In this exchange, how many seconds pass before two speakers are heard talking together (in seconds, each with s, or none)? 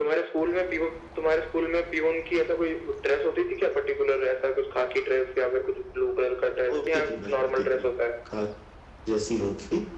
6.7 s